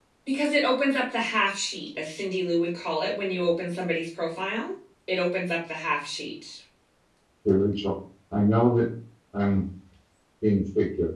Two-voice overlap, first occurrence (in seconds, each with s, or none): none